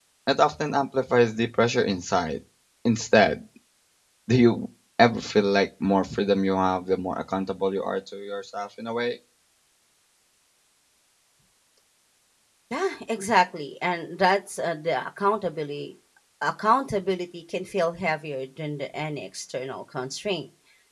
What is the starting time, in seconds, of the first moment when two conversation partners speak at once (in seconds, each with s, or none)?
none